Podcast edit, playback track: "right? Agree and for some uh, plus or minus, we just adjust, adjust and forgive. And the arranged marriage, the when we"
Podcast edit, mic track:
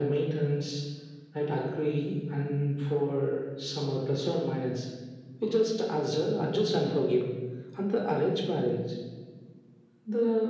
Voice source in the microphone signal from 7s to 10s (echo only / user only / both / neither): echo only